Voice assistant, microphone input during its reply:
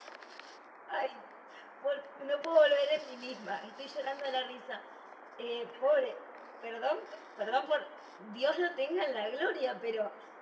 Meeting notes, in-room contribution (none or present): present